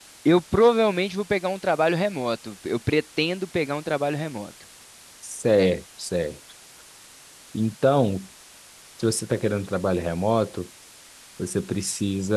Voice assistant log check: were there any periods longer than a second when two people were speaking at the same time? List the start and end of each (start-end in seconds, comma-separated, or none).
none